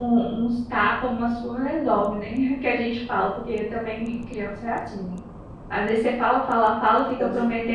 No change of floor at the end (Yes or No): Yes